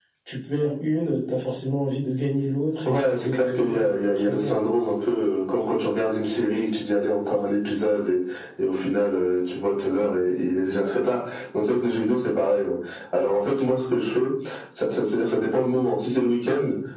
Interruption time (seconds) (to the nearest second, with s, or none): 3 s